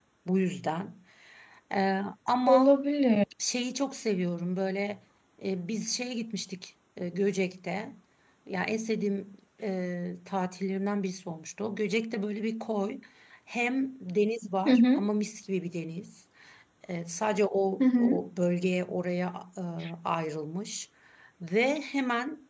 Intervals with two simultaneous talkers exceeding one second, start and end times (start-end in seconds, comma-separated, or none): none